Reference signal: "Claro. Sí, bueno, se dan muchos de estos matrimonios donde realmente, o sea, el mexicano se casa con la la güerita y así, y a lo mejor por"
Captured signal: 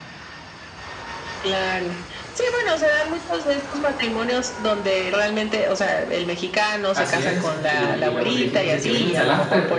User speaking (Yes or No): Yes